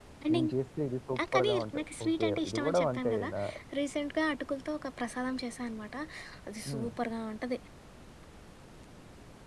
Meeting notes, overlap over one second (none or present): present